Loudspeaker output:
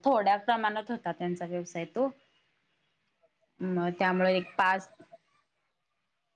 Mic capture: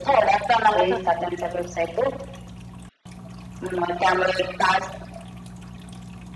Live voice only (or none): होच